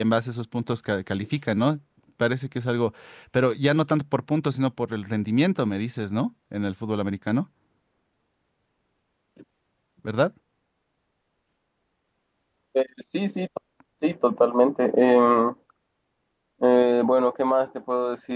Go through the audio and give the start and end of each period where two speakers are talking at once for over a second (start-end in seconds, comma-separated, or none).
none